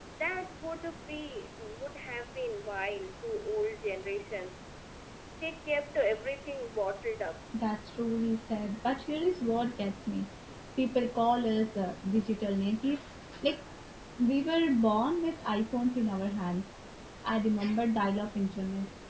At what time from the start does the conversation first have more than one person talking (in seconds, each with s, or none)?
none